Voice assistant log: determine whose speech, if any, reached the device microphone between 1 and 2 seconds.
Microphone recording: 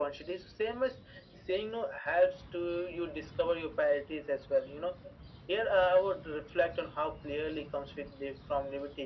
echo only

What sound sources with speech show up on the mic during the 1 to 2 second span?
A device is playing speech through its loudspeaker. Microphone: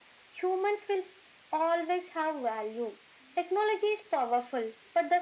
echo only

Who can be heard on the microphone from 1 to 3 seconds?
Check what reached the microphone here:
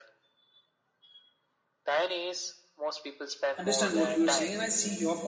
echo only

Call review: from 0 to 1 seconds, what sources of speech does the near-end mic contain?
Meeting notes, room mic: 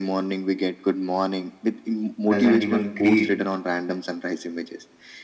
echo only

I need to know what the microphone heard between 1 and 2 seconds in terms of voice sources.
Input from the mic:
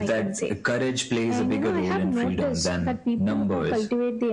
echo only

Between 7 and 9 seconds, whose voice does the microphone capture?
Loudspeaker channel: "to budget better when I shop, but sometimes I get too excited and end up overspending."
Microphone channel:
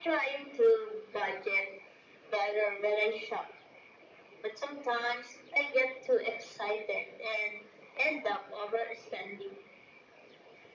echo only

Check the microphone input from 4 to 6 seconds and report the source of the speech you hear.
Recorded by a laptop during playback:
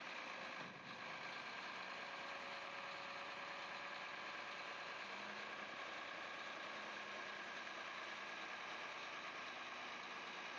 neither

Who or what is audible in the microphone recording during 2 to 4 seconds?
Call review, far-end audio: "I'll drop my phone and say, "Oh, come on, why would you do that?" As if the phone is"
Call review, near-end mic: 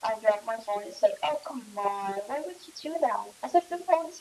echo only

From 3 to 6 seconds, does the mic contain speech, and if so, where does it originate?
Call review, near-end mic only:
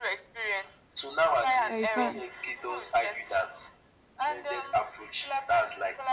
echo only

